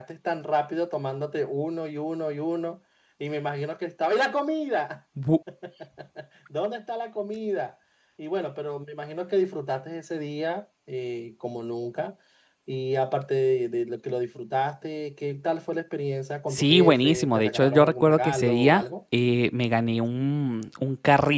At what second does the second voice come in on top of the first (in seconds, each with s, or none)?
16.5 s